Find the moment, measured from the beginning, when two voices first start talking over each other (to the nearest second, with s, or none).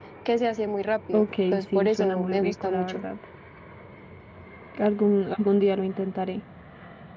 1 s